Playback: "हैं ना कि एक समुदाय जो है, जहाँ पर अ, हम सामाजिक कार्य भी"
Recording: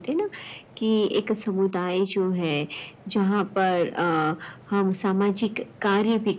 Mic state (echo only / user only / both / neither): echo only